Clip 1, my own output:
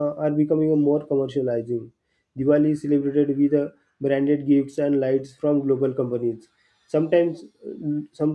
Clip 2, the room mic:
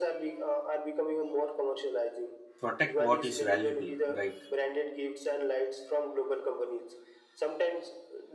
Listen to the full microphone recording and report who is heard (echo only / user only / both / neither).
both